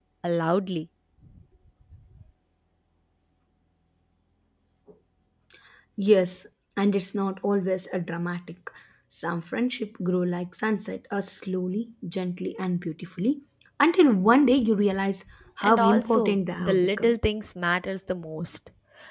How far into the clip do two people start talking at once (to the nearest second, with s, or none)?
16 s